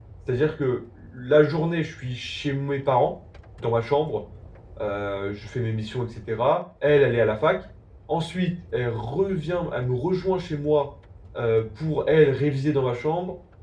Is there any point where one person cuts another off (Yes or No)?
No